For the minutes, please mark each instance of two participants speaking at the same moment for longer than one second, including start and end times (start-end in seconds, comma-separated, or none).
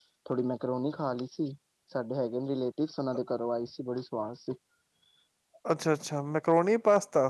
none